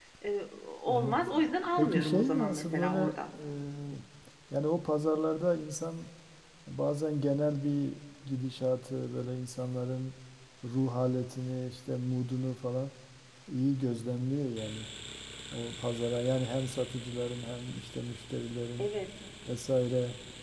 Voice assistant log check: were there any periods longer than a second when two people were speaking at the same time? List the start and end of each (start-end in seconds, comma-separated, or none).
1.8-3.1